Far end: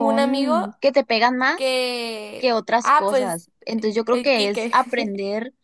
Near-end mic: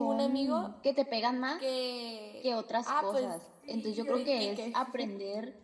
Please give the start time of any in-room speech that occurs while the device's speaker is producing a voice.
4 s

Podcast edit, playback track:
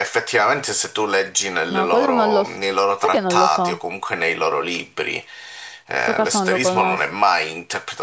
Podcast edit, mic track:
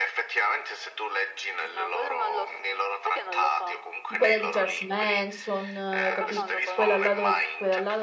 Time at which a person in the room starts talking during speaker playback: 4 s

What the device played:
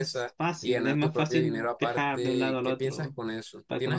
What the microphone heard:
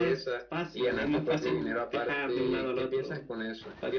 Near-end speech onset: none

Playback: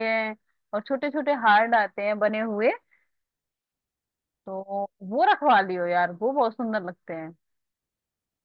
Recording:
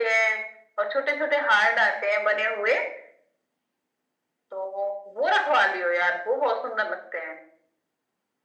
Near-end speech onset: none

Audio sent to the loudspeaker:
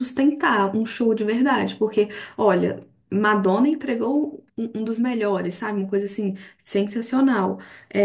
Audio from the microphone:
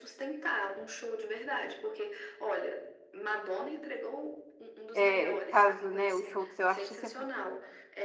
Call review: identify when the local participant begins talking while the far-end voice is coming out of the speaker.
5 s

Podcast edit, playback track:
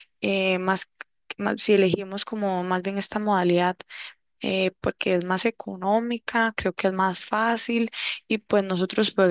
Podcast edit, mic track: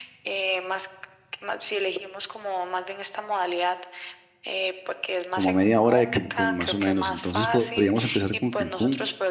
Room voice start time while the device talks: 5 s

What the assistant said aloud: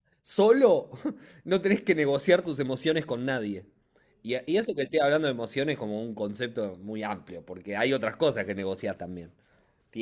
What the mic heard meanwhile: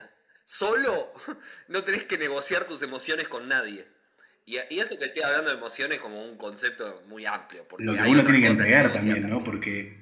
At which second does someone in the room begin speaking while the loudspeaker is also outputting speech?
8 s

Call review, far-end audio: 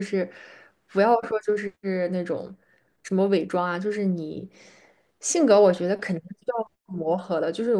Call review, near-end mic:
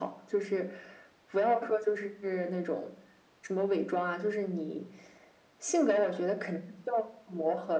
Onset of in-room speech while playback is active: none

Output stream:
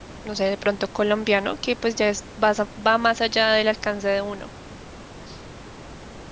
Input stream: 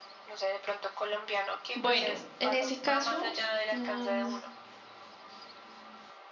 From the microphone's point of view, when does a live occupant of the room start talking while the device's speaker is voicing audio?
2 s

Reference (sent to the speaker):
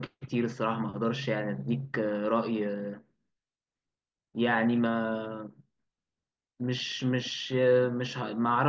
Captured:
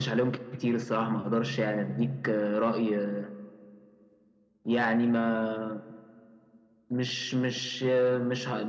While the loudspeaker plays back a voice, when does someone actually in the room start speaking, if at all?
none

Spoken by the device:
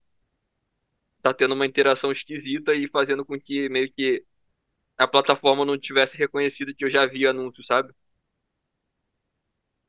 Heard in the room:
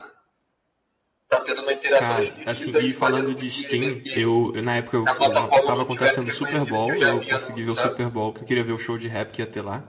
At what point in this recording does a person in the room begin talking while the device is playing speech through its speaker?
2 s

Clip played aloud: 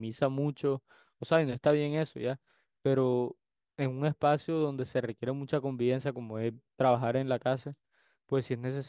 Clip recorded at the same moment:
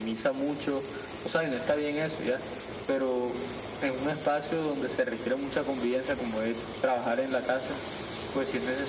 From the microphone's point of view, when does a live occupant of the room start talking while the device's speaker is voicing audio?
none

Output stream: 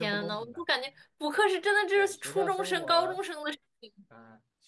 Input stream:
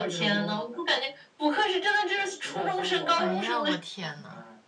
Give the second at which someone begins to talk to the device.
3 s

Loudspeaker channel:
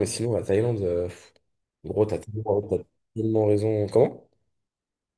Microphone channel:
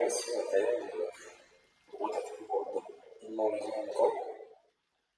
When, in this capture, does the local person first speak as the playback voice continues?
none

